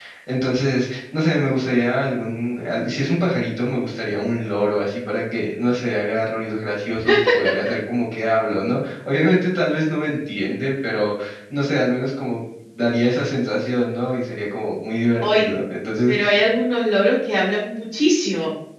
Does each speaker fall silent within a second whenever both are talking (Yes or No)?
Yes